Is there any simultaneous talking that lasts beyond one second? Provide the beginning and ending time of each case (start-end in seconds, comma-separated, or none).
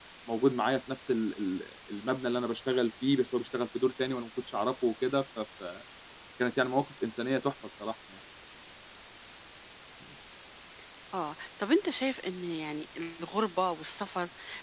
none